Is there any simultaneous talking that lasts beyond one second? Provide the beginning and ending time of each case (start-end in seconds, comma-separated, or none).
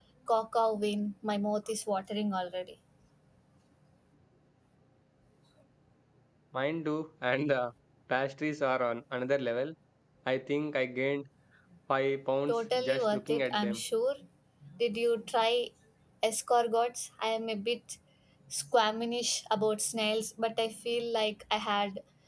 12.5-13.8